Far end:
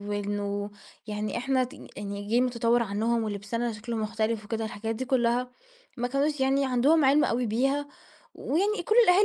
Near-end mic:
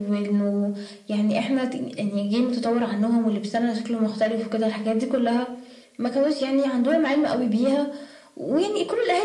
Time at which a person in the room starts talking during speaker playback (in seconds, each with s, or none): none